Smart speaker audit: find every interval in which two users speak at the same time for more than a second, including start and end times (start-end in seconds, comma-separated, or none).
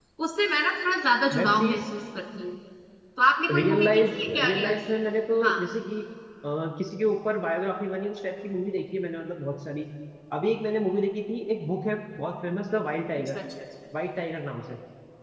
3.5-4.8